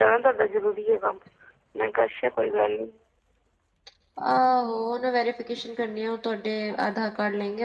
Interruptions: none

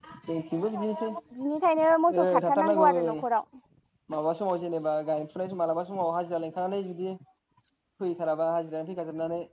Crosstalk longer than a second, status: present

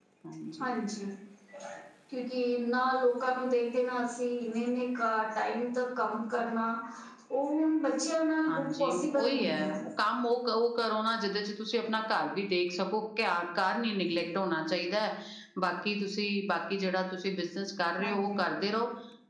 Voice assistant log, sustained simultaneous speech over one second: present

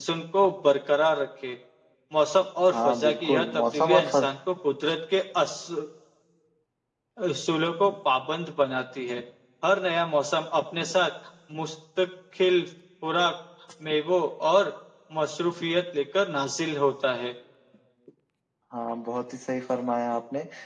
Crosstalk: present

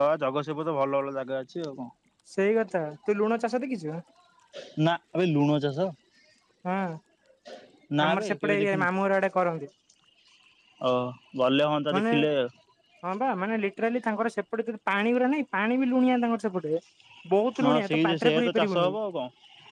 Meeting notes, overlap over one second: present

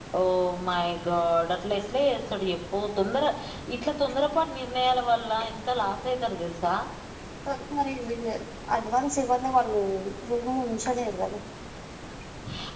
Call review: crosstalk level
none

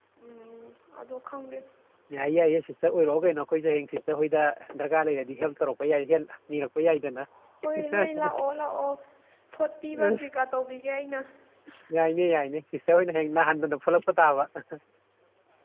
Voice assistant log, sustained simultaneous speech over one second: none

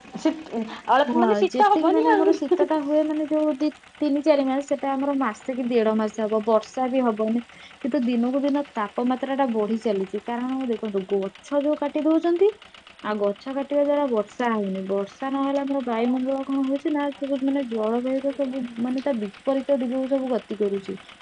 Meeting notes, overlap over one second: present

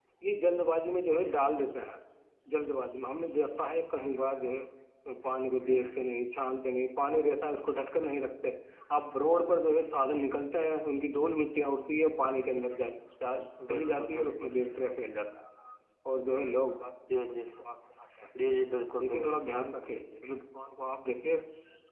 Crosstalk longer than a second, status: present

